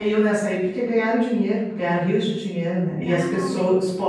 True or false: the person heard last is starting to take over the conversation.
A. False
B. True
A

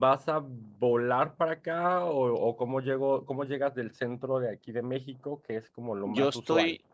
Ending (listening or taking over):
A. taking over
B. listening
A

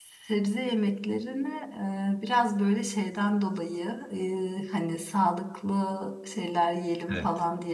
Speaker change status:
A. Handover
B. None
B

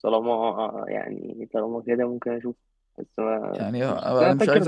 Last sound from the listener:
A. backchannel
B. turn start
B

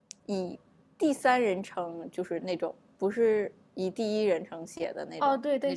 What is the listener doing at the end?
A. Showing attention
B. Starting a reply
B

